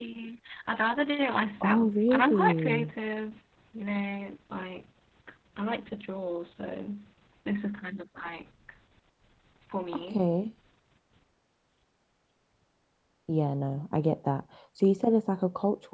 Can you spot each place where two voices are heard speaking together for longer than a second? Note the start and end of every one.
1.6-2.9

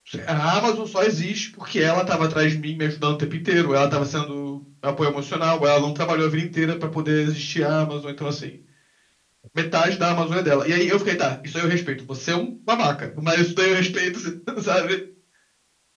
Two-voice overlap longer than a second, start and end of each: none

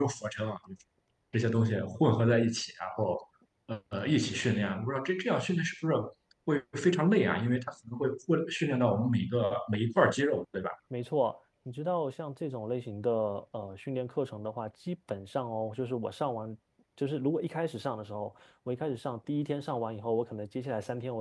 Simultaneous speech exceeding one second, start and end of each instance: none

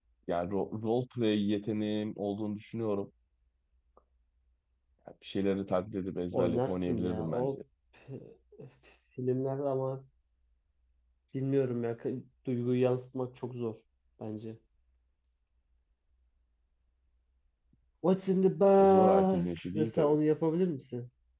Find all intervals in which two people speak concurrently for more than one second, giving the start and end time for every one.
6.3-7.6, 18.8-20.1

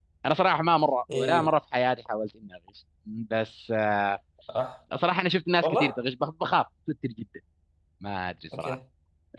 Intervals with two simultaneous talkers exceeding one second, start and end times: none

